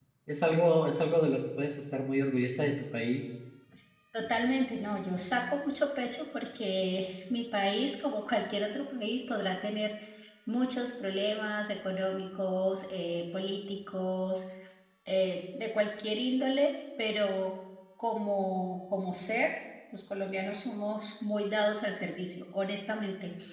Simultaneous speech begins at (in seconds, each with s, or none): none